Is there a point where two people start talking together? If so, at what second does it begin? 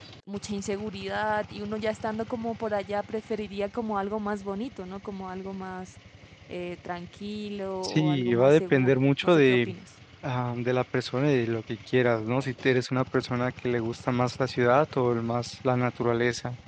8 s

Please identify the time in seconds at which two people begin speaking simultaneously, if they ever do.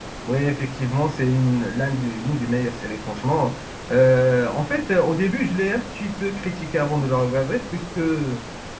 none

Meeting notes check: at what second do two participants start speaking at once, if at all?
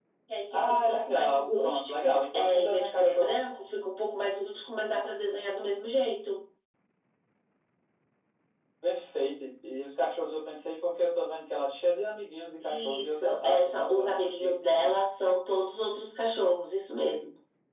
1 s

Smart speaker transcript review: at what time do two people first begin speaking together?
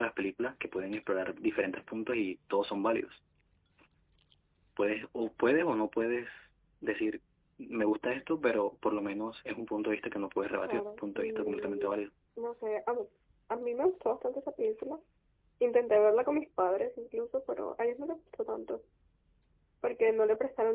11 s

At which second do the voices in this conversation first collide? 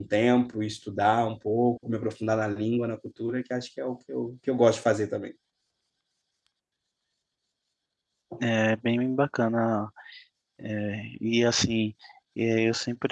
none

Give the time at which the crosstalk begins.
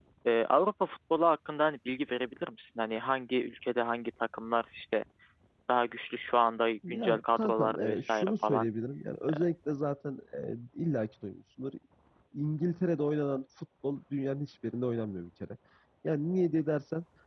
7 s

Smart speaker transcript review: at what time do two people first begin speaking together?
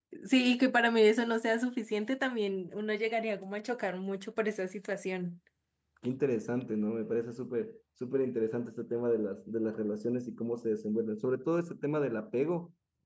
none

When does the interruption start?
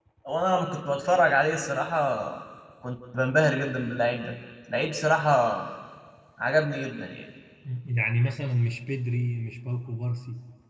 none

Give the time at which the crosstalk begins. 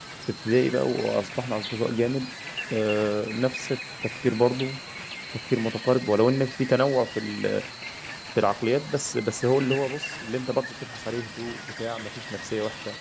none

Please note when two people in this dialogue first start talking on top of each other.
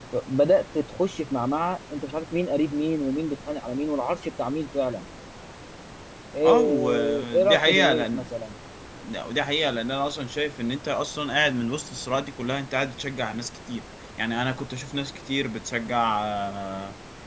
6 s

